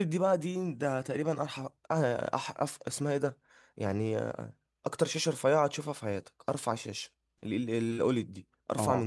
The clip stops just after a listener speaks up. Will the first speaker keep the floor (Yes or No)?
No